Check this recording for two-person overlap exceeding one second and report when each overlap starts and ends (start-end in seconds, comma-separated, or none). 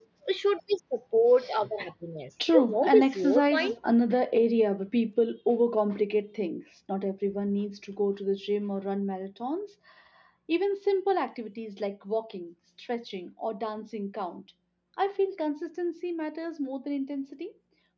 2.5-3.7